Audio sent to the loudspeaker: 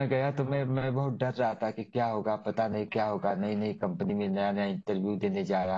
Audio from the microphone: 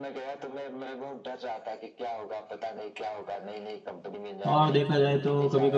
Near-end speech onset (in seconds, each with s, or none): 4.5 s